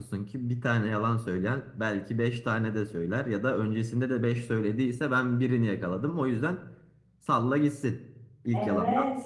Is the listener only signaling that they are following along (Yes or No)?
No